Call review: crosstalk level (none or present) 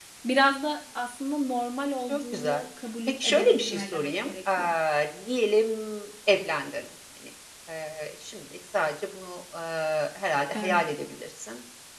present